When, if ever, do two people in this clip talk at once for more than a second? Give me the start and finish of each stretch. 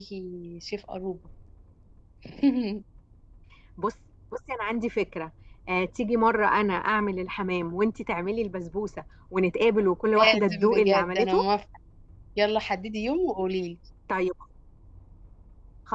10.2-11.4

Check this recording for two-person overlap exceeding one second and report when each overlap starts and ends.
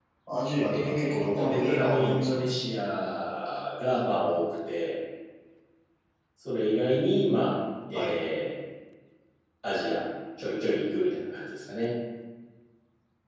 0.7-2.4

